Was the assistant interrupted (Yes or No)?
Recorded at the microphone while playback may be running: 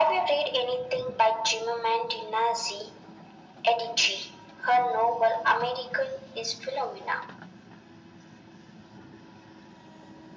No